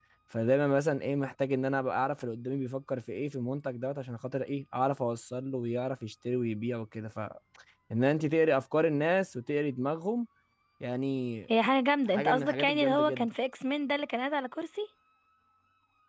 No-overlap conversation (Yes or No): No